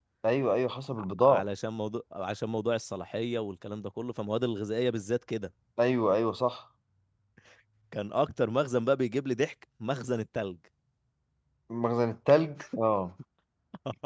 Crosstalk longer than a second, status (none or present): none